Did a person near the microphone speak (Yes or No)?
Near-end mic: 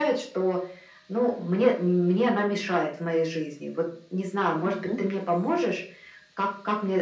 Yes